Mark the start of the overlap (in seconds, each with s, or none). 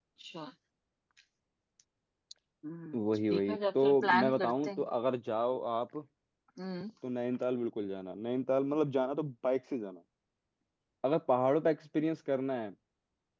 3.4 s